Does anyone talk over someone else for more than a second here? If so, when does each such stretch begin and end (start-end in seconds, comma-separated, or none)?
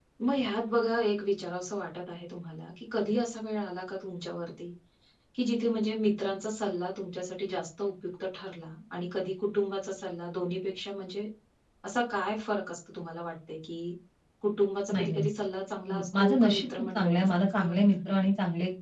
15.9-17.8